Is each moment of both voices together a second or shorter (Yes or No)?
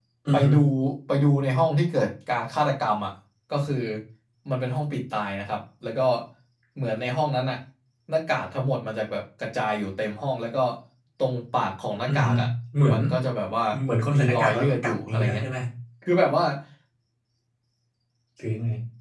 No